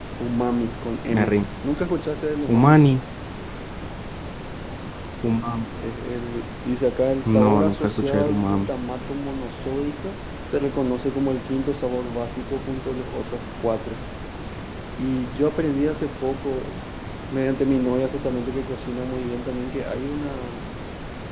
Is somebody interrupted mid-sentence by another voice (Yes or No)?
Yes